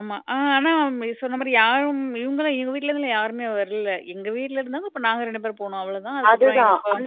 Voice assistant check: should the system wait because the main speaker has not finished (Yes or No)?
No